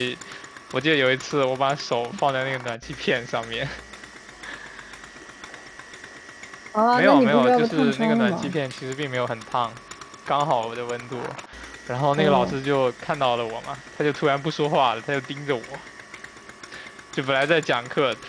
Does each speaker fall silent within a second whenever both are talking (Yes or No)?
No